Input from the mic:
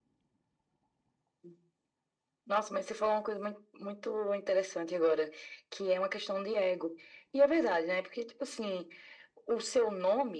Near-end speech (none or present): none